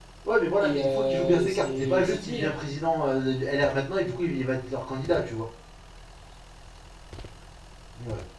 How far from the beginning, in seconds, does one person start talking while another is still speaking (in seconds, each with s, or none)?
0.6 s